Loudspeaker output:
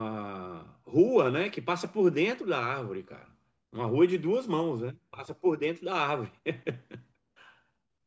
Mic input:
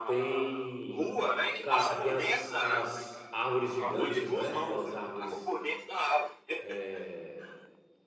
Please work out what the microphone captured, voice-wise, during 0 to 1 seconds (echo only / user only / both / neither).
both